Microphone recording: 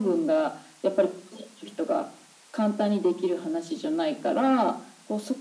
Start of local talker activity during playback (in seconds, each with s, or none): none